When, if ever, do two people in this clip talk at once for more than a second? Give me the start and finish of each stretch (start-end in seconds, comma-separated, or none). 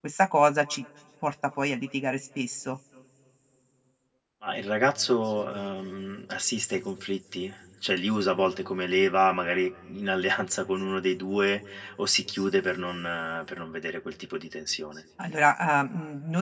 none